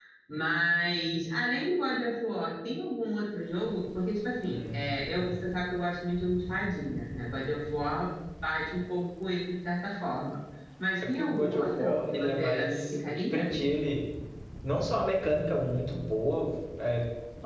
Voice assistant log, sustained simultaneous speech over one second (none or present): present